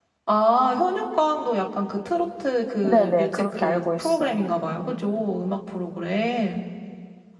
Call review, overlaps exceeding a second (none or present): present